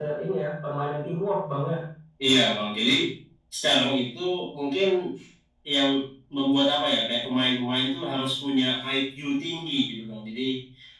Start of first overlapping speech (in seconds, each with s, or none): none